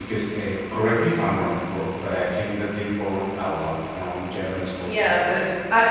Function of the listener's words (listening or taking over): taking over